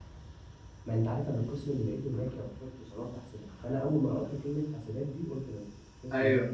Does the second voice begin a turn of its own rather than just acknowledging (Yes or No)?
Yes